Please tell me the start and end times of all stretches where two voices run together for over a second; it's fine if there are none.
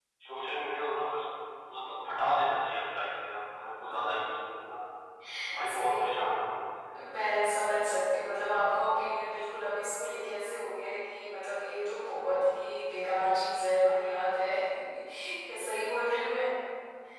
none

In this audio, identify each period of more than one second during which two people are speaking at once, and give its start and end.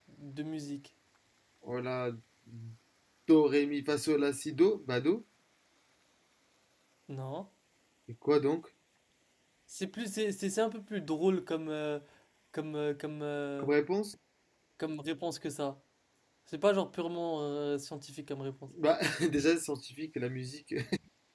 none

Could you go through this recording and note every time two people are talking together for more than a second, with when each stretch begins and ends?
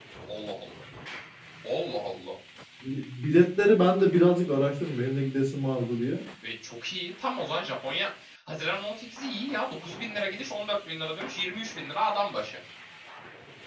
none

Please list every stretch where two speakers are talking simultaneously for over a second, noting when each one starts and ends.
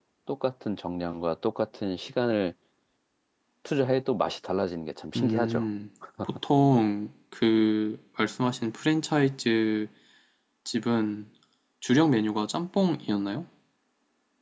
none

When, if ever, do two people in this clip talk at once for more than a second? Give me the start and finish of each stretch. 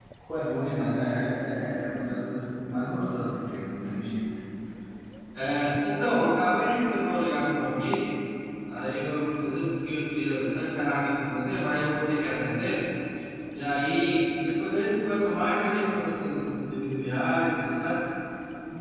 none

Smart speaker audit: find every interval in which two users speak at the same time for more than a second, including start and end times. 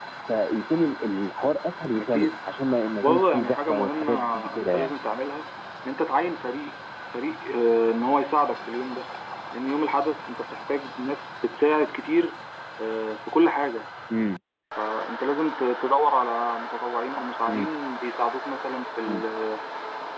3.0-4.9

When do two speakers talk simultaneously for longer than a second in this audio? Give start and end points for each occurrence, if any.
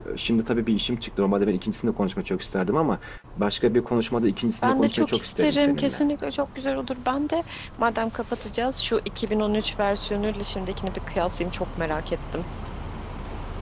4.6-6.0

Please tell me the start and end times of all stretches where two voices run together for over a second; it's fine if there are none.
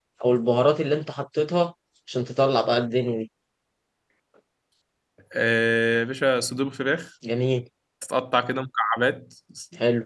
none

